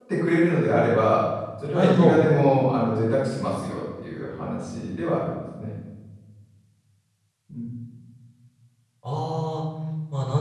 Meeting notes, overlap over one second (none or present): none